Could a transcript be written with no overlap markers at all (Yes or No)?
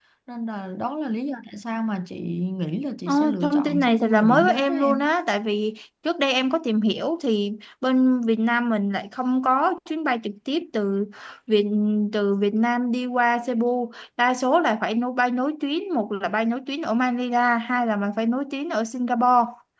No